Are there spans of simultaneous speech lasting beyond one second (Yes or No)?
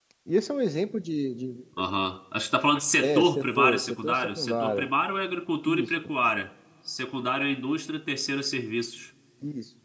Yes